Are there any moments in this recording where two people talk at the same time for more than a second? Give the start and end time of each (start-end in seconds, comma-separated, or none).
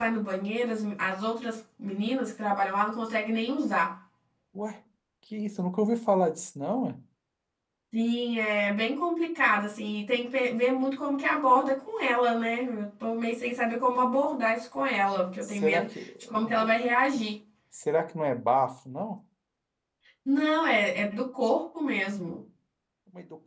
15.4-16.7